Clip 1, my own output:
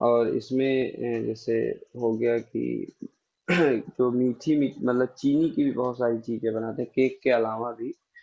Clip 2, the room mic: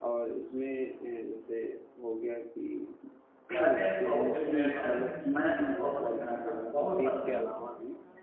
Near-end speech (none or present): present